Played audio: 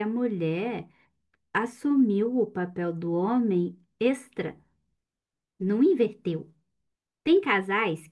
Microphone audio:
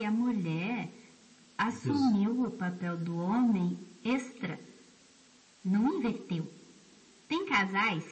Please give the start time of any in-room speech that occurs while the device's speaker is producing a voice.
1.7 s

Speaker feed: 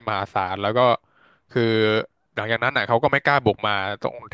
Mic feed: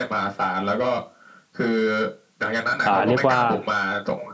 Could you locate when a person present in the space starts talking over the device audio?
2.8 s

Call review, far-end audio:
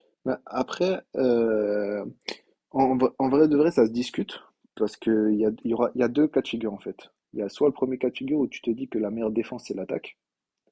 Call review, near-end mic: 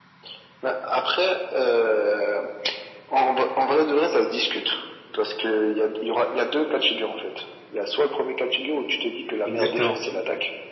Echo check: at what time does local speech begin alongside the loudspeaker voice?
9.4 s

